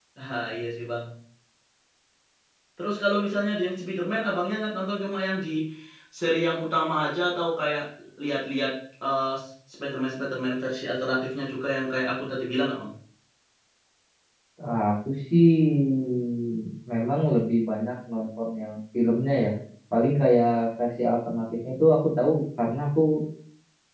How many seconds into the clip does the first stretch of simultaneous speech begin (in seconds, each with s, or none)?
none